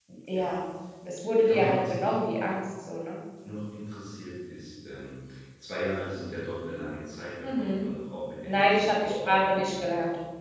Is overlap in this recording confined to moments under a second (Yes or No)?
No